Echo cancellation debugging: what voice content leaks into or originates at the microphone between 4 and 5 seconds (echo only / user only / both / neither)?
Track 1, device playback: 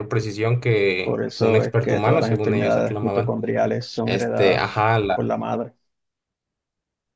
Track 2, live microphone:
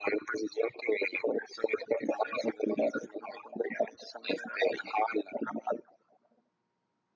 echo only